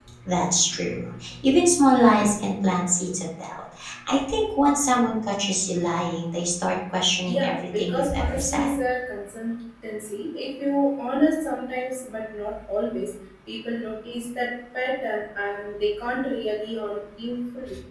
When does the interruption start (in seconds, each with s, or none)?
7.3 s